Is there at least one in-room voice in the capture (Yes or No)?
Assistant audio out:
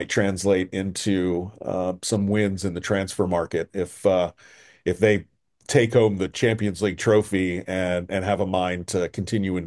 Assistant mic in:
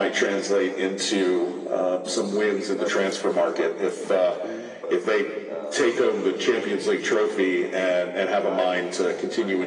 Yes